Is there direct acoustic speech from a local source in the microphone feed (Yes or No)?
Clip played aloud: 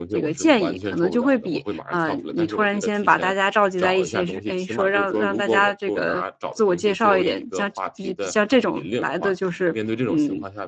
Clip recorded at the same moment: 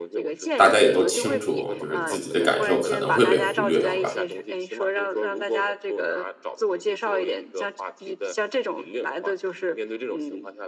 Yes